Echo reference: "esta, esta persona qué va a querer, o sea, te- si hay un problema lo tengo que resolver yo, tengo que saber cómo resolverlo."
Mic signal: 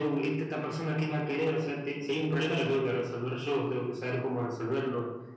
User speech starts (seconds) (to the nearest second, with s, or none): none